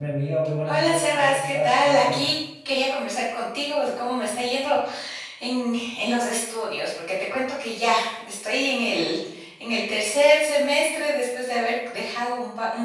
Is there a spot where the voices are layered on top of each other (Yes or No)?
Yes